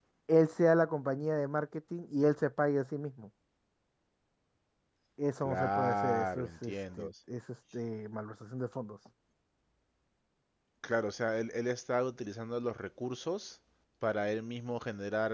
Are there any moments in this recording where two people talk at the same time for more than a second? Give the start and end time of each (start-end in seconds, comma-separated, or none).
5.4-7.1